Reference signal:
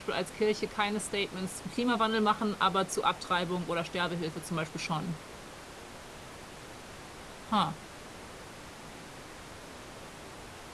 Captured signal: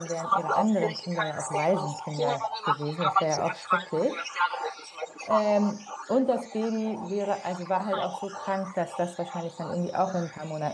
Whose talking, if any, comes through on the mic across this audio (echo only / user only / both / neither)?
both